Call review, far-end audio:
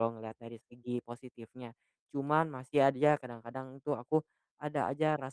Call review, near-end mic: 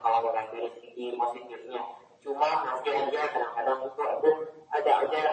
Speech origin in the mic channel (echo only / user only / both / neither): echo only